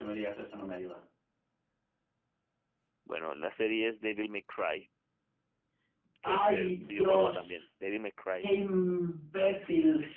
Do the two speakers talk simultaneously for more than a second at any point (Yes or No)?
Yes